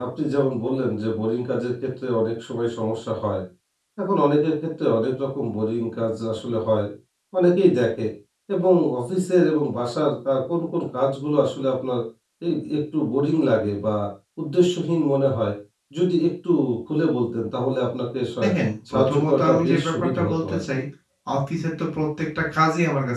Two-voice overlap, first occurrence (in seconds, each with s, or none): 18.9 s